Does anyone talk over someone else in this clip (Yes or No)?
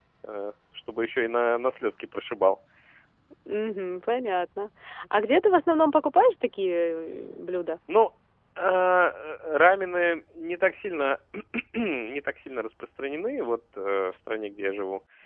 No